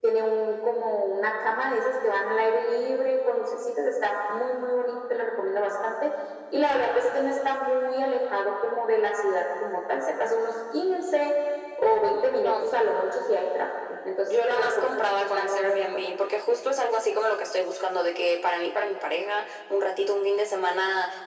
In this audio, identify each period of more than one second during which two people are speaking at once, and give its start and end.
14.3-15.8

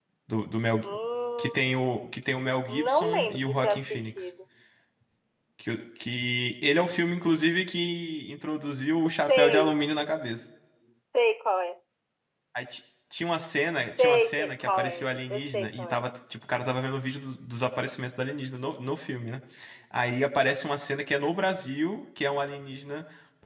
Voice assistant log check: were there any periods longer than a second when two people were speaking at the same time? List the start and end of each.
2.7-4.3, 14.0-16.0

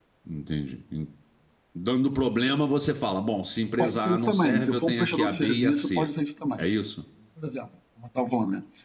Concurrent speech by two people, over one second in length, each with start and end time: 3.8-6.1

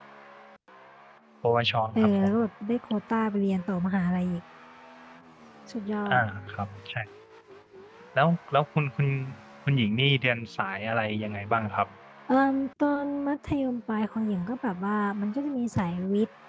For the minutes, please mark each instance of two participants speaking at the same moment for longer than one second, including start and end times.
none

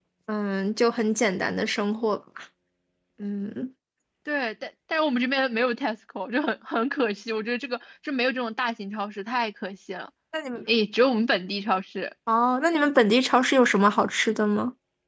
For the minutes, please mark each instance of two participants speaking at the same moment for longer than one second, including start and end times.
none

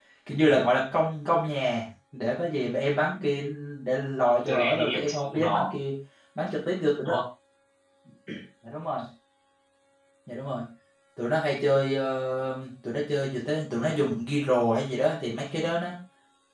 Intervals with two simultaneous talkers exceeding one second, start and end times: 4.4-5.7

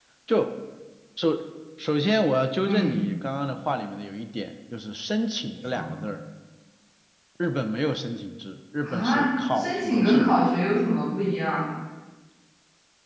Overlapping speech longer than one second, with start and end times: 8.8-10.3

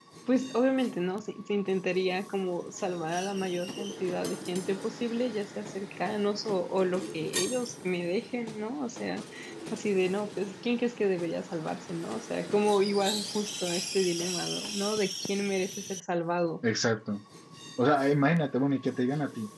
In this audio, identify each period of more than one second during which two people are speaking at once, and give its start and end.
none

